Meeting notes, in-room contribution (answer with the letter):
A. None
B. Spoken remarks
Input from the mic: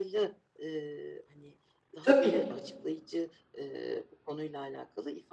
B